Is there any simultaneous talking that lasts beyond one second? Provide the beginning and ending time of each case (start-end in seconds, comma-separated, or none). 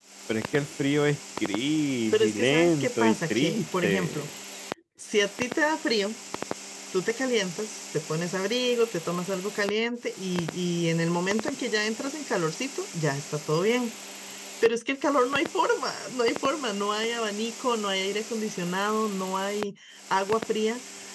2.1-4.3